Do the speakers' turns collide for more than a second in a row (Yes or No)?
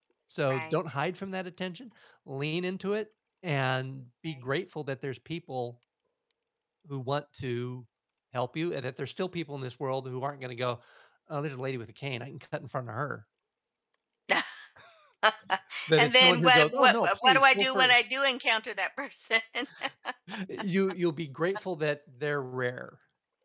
Yes